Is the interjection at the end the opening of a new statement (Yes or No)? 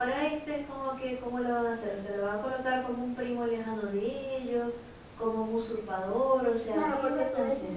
Yes